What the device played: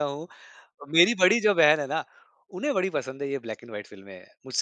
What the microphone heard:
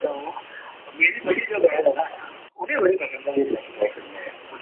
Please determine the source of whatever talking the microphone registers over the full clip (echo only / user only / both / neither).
echo only